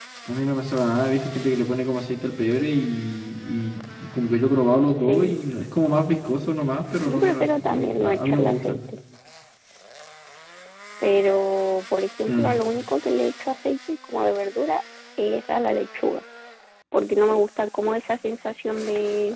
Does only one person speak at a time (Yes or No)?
No